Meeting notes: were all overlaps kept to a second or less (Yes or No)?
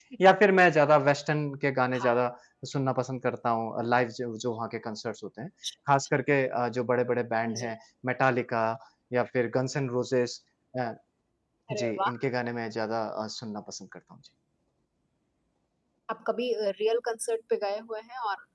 Yes